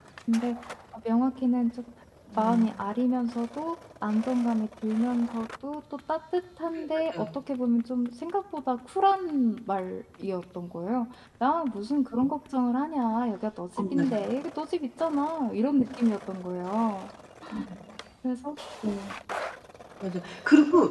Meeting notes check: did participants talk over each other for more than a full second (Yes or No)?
No